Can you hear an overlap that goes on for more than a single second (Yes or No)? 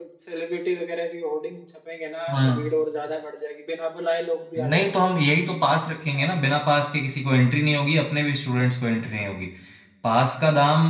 No